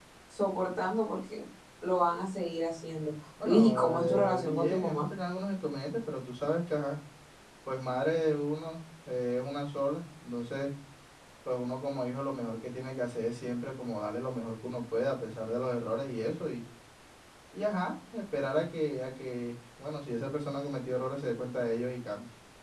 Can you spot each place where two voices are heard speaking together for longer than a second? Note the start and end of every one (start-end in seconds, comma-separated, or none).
3.4-5.1